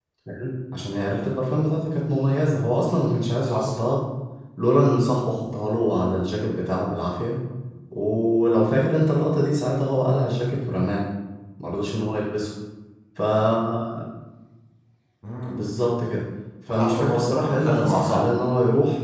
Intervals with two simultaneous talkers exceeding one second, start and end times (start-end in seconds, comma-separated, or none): 16.7-18.2